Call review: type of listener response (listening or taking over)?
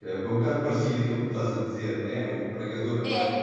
listening